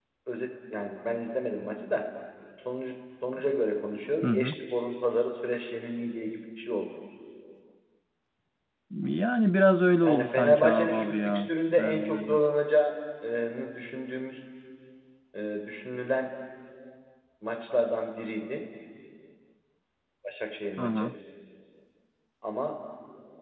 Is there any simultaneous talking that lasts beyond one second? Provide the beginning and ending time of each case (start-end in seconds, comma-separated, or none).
10.0-12.4